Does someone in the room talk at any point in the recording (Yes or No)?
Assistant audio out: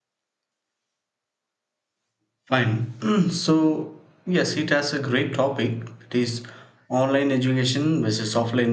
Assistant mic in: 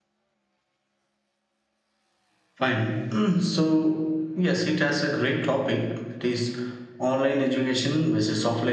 No